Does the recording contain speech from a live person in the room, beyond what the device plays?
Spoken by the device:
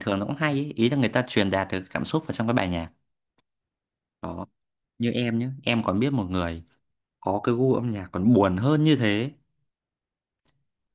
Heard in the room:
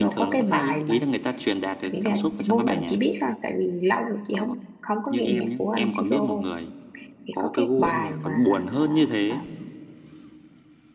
Yes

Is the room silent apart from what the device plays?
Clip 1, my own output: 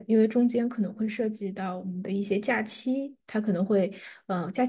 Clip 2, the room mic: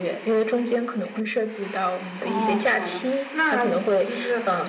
No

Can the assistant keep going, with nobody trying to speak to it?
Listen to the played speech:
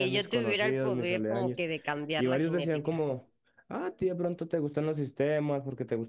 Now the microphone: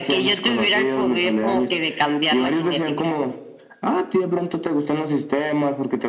Yes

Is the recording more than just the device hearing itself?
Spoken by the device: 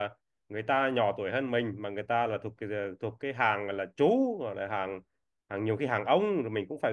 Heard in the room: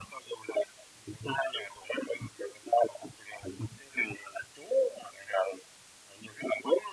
No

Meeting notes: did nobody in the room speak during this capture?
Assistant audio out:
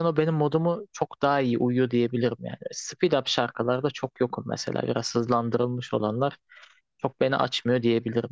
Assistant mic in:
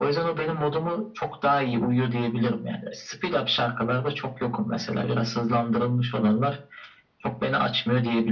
Yes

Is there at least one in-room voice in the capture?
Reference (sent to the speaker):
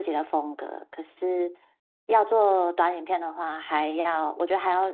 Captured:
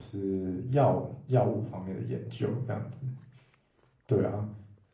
Yes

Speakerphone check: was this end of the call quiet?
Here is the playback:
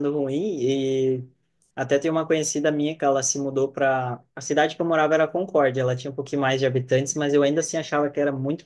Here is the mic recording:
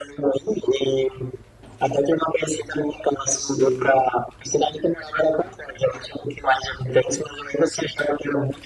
No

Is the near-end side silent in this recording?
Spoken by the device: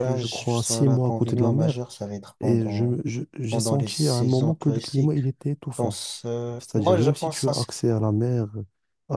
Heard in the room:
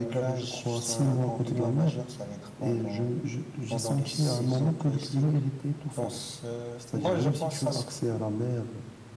Yes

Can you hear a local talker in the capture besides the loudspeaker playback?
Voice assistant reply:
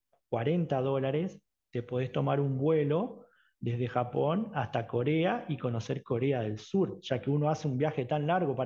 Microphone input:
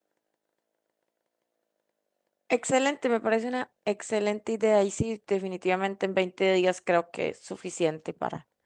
Yes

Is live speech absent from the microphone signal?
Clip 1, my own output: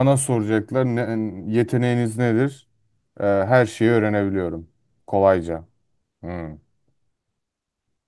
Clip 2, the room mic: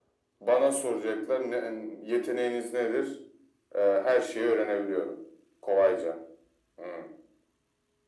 Yes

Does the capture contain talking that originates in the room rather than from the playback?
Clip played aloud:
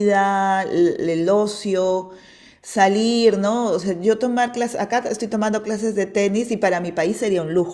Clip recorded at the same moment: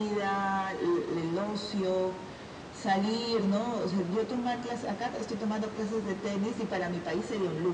No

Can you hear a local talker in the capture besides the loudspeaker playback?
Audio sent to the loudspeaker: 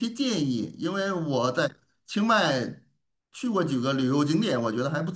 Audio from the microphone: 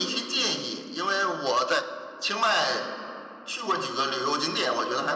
No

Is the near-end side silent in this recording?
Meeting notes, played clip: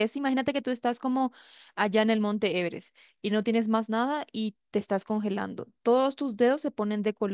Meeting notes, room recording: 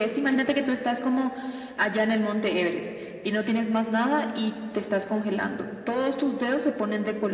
Yes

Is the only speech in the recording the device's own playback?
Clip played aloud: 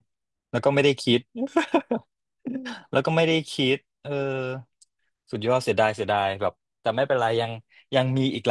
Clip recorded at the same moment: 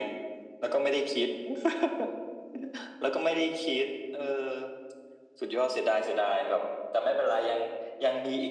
Yes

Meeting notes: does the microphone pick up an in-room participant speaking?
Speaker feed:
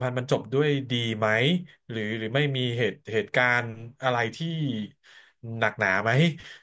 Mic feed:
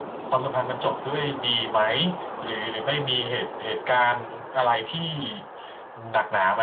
No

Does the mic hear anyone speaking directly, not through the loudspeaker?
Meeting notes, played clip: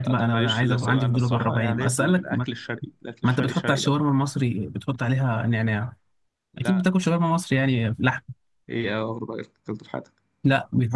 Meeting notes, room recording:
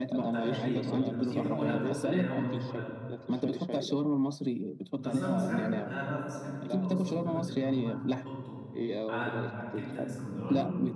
Yes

